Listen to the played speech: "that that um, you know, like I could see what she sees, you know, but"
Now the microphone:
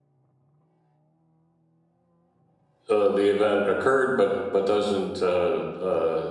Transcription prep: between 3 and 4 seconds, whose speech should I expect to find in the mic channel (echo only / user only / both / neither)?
user only